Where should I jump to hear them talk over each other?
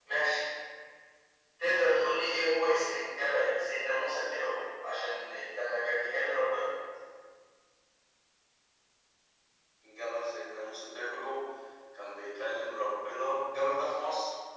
none

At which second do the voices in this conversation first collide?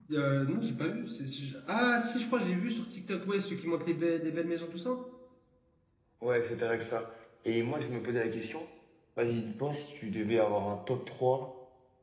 none

